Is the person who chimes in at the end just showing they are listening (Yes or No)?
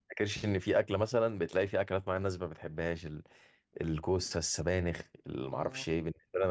Yes